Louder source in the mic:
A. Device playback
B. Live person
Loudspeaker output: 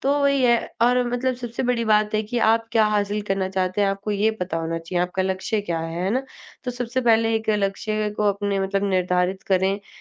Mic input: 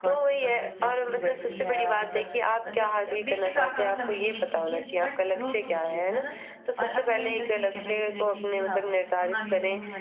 A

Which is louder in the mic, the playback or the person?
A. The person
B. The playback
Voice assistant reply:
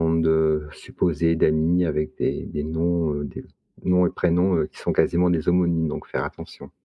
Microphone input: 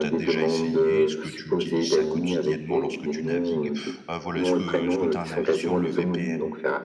B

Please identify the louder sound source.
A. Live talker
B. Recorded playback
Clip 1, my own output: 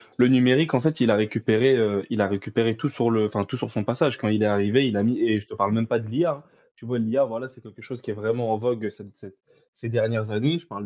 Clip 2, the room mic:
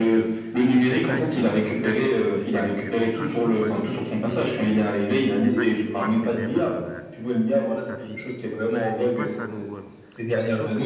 B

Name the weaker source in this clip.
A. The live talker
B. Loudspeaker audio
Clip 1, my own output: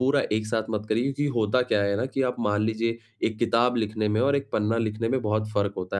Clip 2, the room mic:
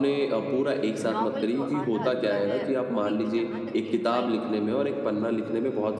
A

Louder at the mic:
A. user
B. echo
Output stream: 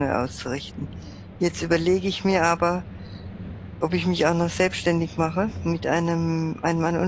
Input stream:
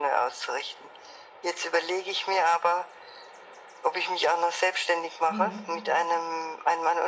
B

